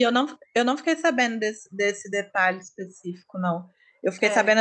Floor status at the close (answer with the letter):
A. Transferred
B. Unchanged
B